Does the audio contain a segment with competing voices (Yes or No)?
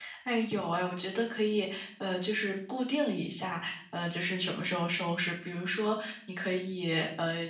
No